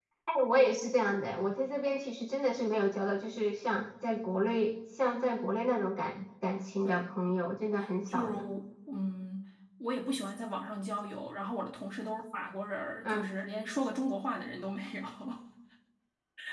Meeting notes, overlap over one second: none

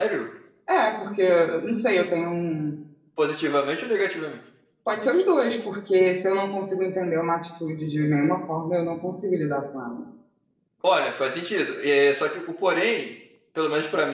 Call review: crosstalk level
none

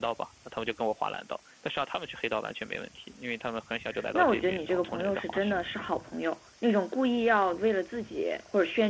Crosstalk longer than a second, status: present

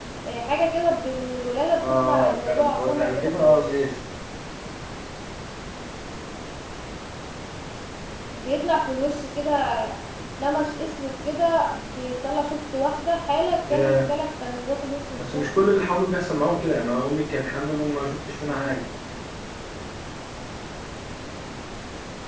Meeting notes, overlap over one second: present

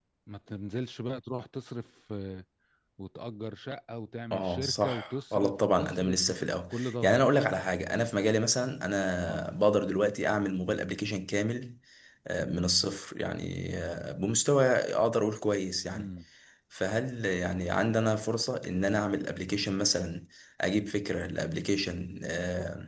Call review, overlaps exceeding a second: present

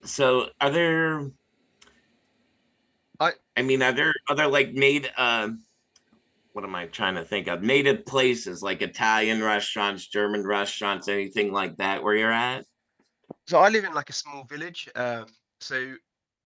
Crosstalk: none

